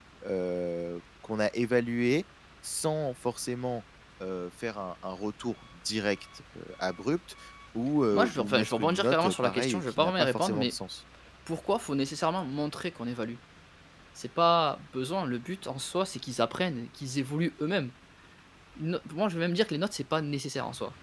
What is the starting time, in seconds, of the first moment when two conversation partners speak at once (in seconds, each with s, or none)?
8.1 s